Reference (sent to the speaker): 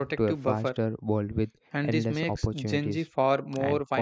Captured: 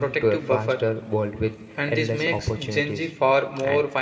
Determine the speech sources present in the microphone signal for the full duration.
echo only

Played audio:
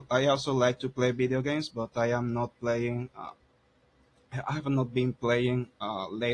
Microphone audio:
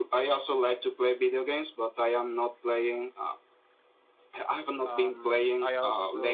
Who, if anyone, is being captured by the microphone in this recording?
both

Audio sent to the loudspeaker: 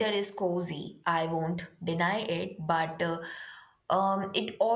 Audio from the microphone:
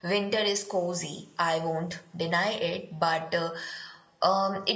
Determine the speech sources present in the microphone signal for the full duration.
echo only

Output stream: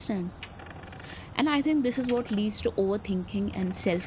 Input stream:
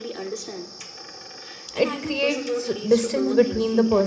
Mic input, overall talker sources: both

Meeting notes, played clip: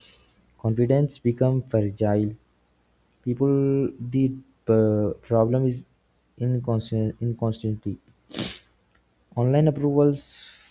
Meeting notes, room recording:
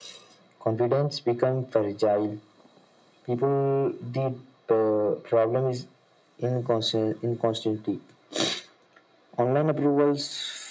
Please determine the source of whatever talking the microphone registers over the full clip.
echo only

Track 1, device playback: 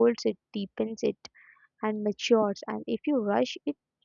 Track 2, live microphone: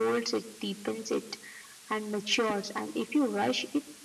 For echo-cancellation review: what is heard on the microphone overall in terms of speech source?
echo only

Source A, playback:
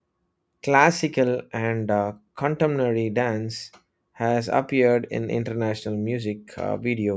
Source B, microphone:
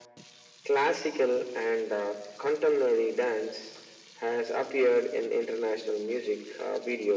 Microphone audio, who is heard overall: echo only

